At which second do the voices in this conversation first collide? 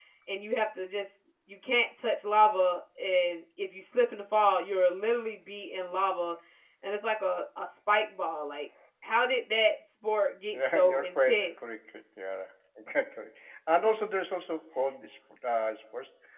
10.5 s

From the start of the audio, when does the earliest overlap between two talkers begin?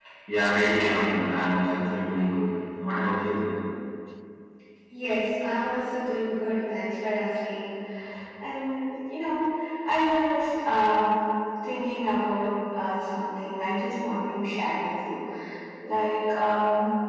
none

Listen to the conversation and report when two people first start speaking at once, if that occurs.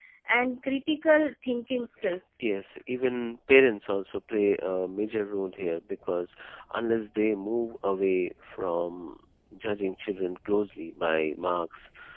none

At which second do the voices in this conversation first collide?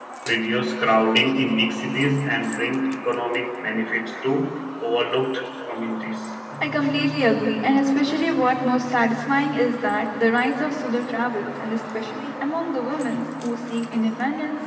none

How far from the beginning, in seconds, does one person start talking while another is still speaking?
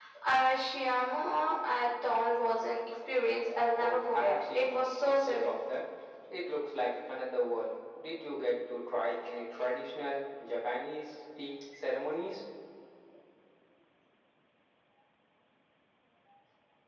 3.7 s

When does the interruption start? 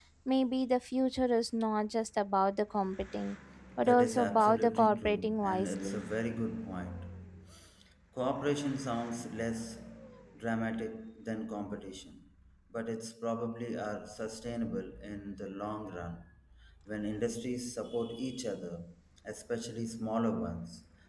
3.8 s

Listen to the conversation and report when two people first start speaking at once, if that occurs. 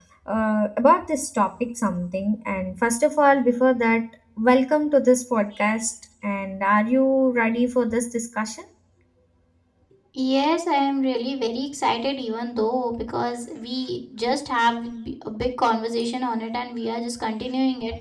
none

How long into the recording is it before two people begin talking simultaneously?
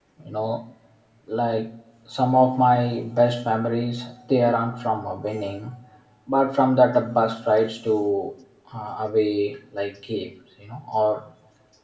none

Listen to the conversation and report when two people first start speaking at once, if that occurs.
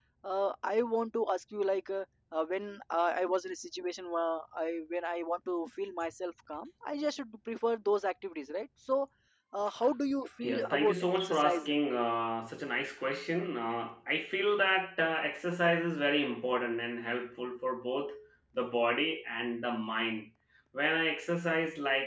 10.4 s

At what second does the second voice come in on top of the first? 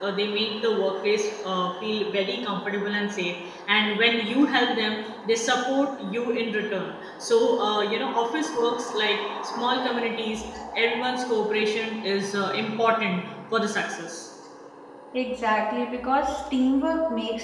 none

